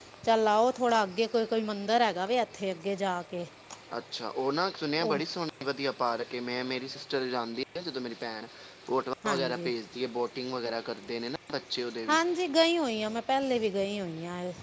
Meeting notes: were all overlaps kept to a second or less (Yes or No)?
Yes